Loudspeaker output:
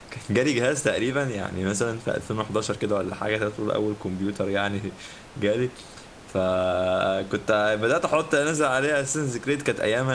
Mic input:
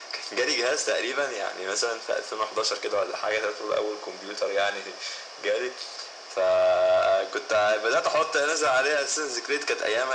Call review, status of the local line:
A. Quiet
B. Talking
A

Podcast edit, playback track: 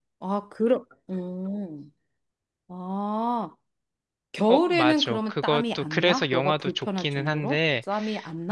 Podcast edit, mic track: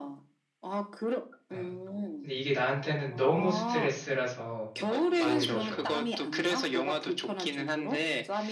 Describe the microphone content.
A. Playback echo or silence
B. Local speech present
B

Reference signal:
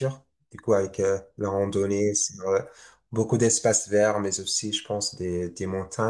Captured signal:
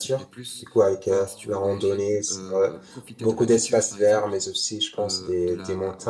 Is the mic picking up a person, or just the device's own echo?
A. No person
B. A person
B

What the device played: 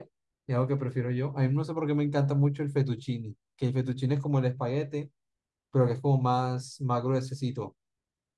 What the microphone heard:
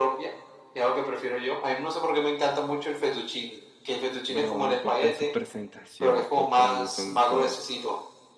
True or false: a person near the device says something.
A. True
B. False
A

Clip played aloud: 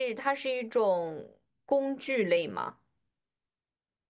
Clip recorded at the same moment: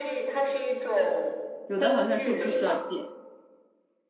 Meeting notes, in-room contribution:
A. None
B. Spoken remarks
B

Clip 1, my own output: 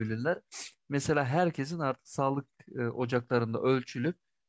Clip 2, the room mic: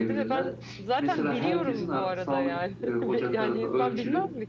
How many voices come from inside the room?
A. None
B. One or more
B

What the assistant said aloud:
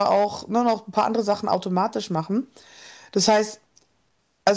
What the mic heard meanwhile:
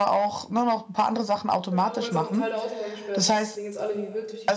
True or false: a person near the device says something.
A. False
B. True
B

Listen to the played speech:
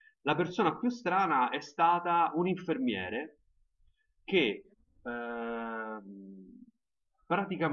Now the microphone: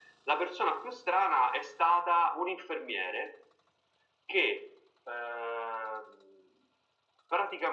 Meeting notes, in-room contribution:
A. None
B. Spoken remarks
A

